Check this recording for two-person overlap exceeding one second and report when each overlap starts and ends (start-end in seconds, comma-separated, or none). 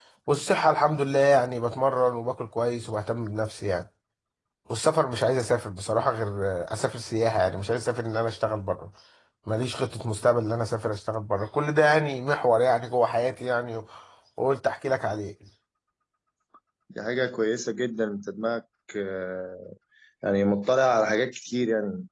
none